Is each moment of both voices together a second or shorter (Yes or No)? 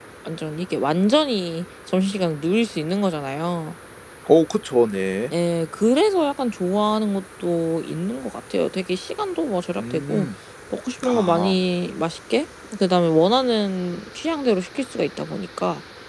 Yes